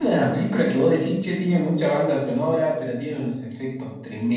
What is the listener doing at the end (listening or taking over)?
taking over